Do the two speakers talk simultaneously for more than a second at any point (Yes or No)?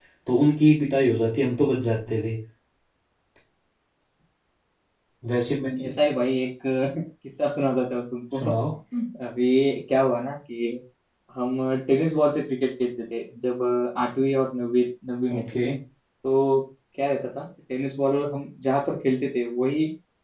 No